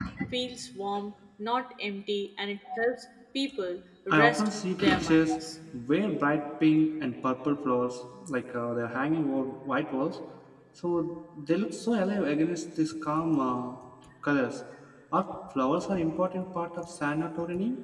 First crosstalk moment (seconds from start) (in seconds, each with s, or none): 4.1 s